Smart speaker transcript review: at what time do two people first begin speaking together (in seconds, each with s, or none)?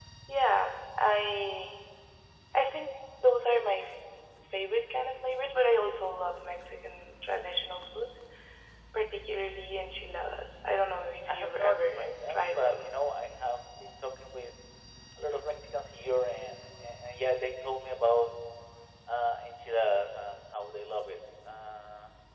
11.3 s